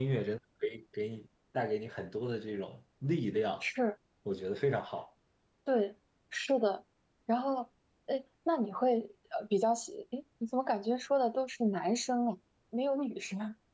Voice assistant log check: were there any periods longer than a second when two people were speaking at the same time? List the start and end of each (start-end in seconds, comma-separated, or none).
none